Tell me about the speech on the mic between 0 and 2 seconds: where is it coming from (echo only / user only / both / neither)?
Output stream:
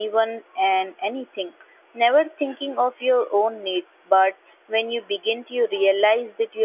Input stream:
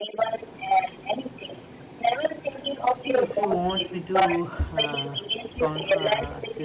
echo only